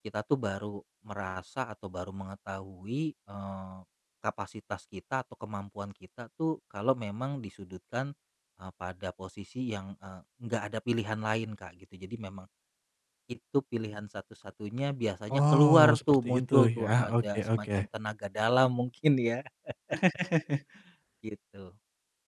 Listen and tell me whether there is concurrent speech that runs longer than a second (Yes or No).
Yes